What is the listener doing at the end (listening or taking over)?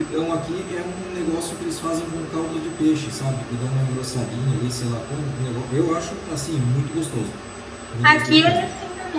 taking over